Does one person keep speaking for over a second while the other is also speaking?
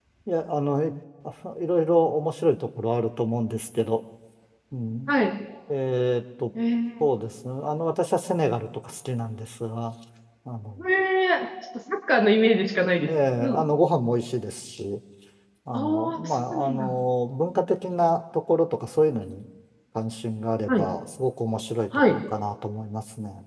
Yes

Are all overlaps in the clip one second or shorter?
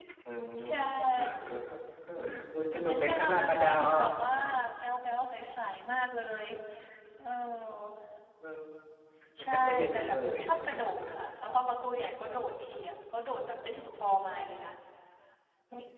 No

